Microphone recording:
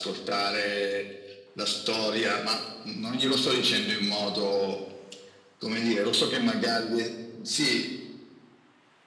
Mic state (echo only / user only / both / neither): echo only